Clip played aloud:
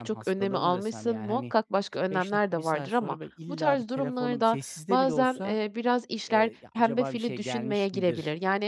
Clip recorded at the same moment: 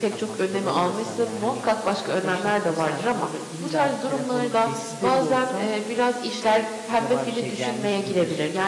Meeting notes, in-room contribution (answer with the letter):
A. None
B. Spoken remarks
A